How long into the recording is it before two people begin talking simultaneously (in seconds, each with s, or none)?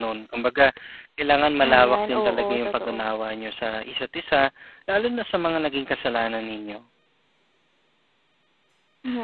1.7 s